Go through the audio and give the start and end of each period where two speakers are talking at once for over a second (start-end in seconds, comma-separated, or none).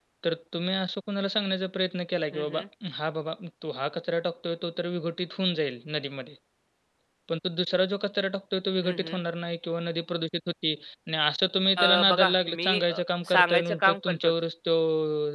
11.8-14.3